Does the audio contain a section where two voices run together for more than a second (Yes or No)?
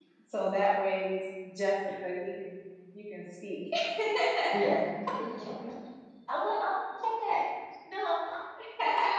No